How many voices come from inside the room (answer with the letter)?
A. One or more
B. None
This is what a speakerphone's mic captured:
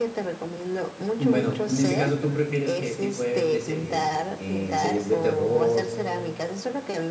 A